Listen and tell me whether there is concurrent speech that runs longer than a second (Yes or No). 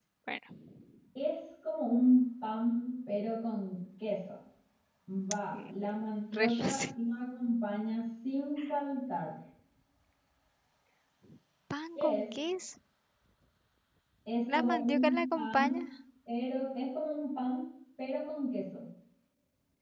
Yes